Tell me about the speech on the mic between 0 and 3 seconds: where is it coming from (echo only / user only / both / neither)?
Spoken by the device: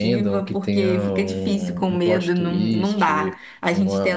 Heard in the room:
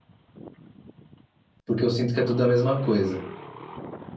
user only